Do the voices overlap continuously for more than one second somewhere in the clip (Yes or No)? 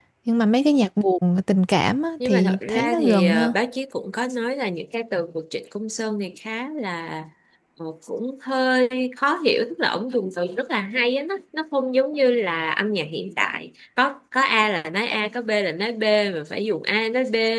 Yes